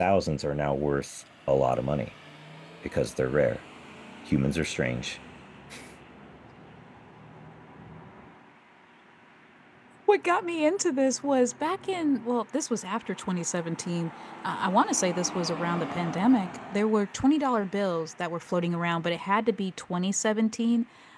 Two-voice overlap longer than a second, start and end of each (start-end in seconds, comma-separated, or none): none